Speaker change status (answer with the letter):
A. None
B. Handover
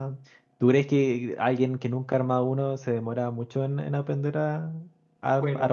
B